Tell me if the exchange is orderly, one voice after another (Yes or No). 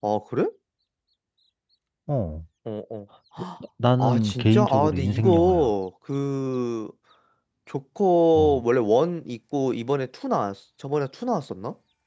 No